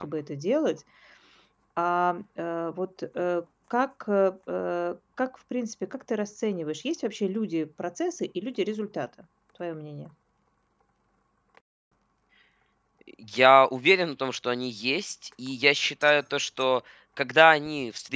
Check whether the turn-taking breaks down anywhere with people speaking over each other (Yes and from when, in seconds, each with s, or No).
No